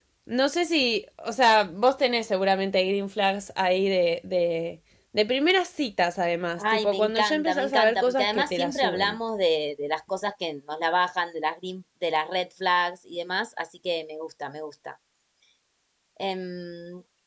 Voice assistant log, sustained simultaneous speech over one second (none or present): present